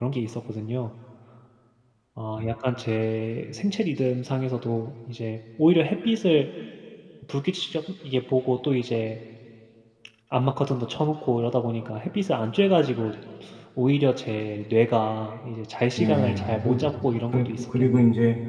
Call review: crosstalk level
present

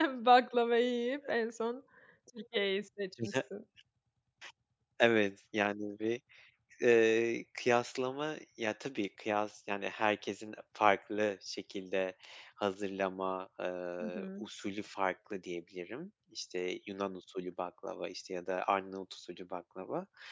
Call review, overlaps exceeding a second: none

